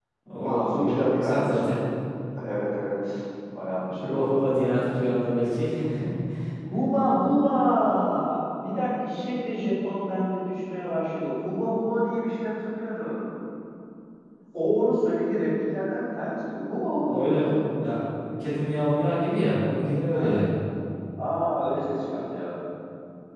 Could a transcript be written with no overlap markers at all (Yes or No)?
No